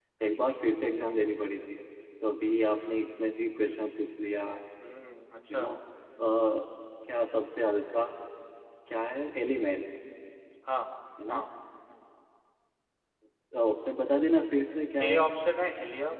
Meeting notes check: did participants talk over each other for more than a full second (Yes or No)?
No